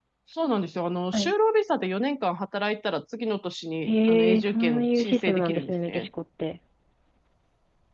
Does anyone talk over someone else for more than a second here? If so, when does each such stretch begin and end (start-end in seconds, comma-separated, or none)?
3.9-6.1